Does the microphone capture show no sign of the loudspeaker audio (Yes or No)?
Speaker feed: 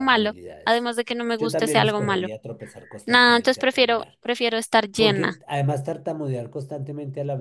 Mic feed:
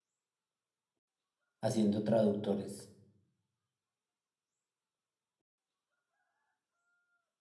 Yes